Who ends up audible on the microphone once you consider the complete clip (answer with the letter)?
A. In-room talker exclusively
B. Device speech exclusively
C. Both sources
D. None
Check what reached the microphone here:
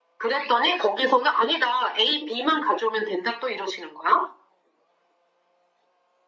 B